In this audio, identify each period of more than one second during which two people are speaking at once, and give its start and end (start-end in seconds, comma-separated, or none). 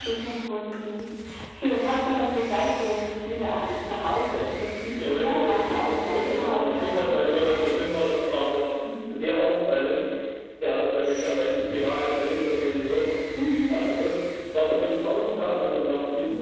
4.9-7.6